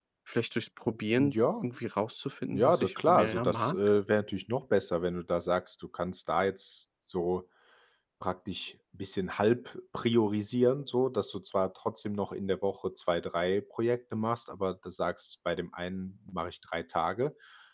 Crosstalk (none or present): present